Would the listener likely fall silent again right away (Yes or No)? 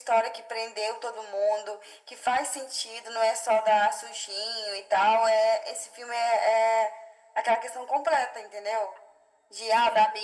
Yes